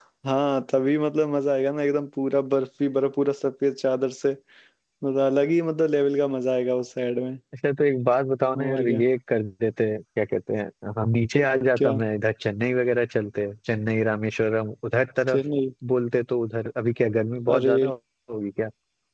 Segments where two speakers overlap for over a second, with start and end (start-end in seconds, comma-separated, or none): none